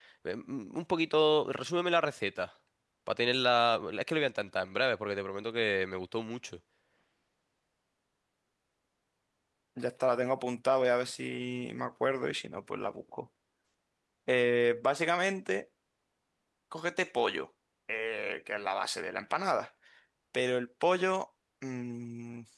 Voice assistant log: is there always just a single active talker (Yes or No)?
Yes